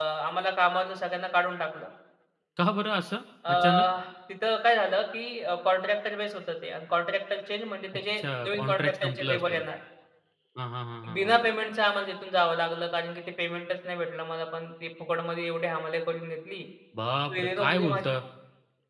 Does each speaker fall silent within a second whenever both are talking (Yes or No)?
No